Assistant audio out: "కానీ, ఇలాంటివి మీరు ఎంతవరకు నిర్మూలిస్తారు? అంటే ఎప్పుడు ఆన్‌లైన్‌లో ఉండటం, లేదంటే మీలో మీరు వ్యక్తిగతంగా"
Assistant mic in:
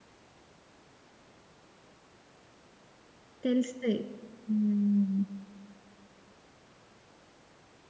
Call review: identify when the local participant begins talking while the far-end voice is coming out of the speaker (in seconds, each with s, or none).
3.4 s